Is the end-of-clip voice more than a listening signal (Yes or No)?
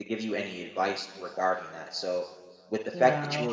No